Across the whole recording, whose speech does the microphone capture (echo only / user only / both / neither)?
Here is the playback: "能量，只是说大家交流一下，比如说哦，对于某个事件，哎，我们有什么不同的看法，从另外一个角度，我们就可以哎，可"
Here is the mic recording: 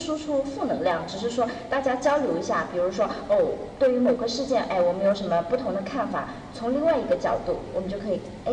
echo only